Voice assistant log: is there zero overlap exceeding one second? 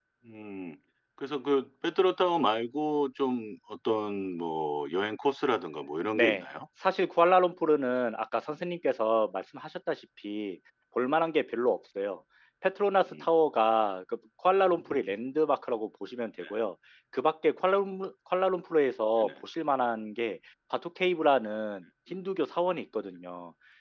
Yes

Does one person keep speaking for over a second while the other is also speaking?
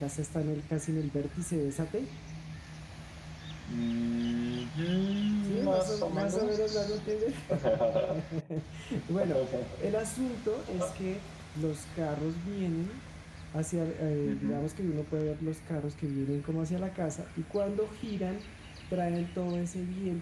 Yes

